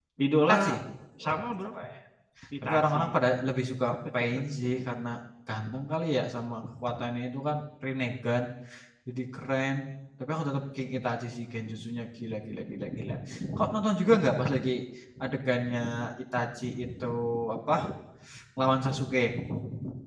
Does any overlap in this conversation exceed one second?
No

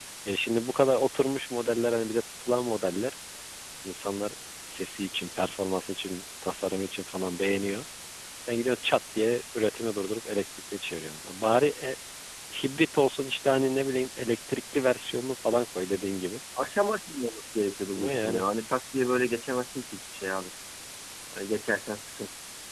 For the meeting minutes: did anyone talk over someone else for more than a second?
No

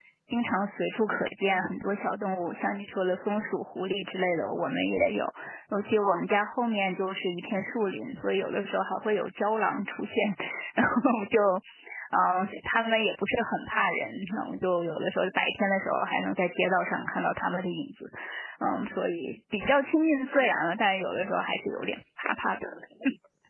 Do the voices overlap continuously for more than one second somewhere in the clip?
No

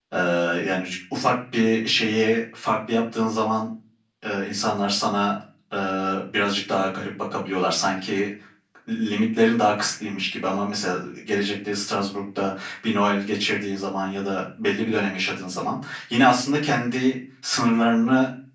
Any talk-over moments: No

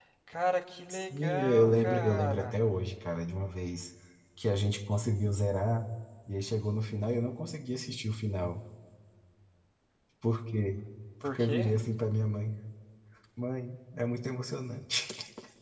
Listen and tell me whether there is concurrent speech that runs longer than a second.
Yes, from 0.9 s

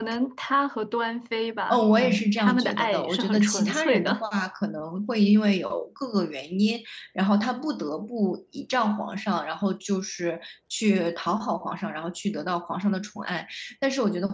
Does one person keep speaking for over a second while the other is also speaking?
Yes, from 1.7 s

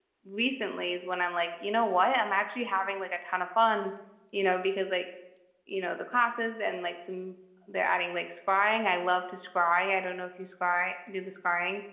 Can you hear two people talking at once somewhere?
No

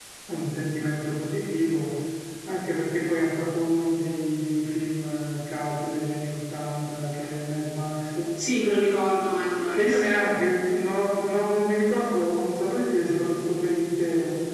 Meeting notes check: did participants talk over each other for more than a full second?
No

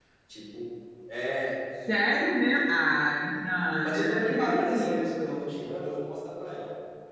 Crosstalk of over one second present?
Yes, from 3.8 s

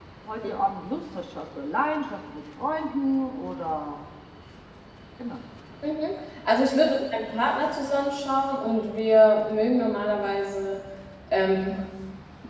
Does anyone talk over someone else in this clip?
No

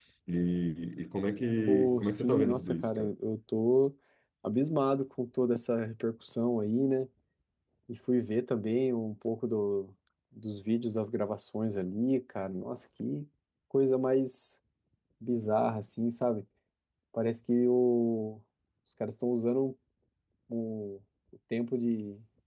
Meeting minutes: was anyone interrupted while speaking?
Yes, from 1.7 s

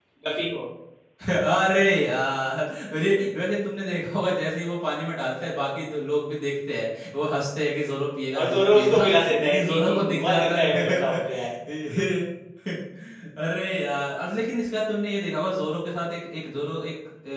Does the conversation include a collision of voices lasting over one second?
Yes, from 8.3 s

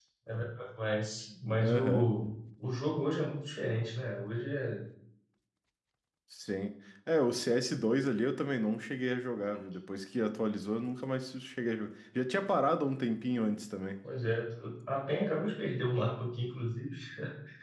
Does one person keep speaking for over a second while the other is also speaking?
No

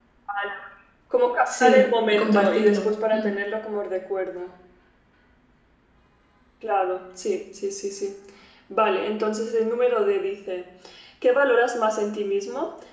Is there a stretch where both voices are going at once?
Yes, from 1.5 s

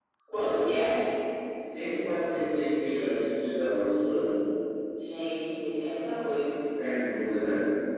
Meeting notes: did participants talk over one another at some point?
No

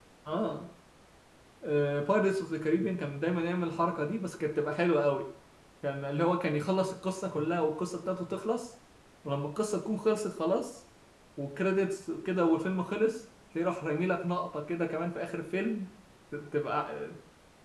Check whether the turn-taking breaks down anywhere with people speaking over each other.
No

